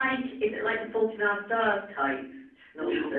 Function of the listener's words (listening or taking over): taking over